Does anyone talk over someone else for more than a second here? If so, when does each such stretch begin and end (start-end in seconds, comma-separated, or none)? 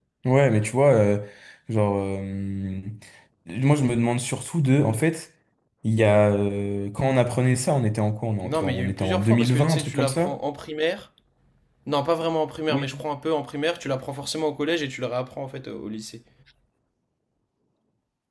8.4-10.4